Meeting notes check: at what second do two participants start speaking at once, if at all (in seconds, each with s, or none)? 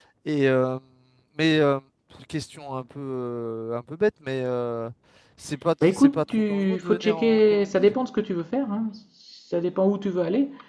5.9 s